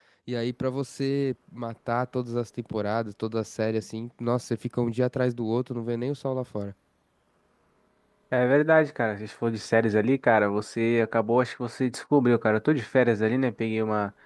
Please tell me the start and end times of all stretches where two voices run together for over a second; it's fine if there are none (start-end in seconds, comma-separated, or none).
none